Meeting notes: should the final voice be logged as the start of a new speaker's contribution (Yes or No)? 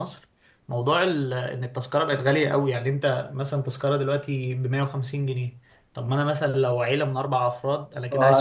Yes